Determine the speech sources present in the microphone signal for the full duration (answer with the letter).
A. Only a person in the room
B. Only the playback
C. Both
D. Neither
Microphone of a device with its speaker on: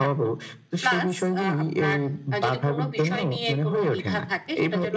B